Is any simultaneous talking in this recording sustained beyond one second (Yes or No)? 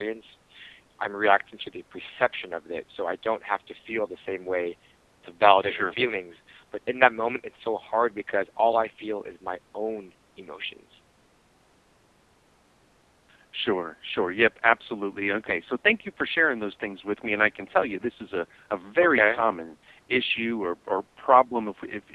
No